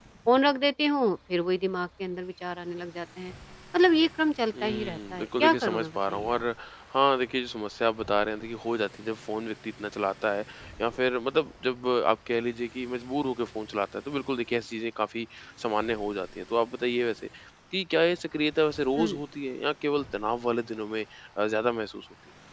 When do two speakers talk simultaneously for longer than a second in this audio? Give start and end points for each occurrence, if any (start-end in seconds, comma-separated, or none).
4.6-6.4